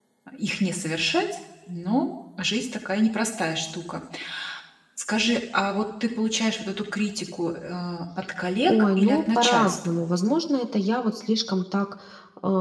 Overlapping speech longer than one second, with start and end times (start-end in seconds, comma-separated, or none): 8.6-10.0